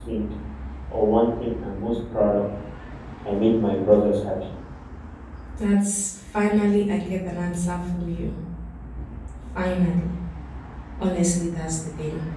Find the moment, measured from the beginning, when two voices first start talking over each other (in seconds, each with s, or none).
none